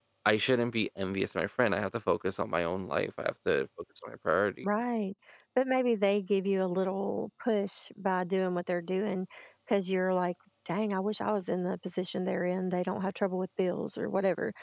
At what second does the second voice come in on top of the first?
none

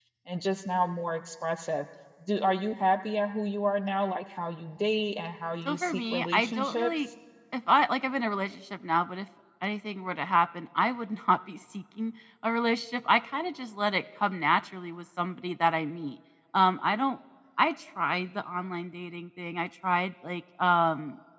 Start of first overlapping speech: 5.7 s

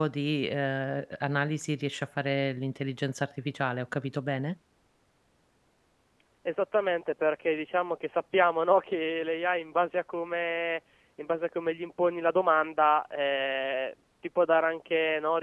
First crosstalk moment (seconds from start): none

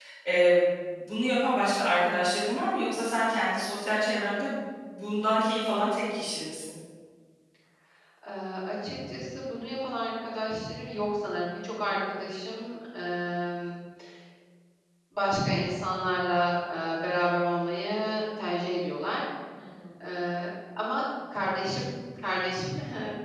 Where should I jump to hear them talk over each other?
none

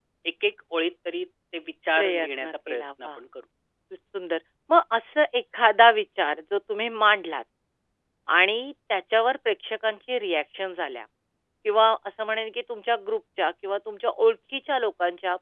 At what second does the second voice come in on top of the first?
2.0 s

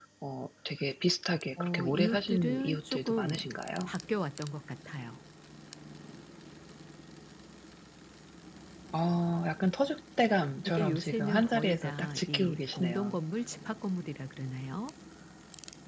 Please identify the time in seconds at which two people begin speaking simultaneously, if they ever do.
1.6 s

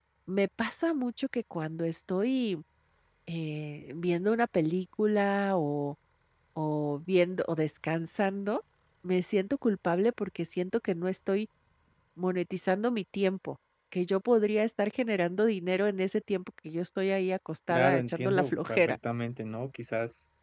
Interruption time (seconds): 17.7 s

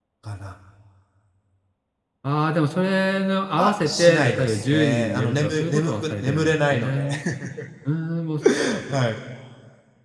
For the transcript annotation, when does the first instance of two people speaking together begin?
3.6 s

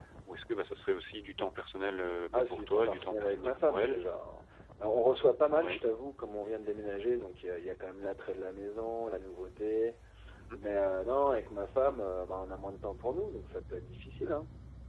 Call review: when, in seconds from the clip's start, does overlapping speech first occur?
2.3 s

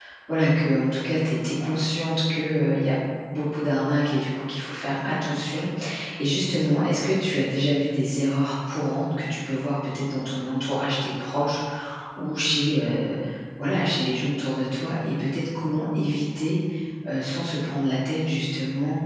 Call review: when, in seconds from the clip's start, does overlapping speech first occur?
none

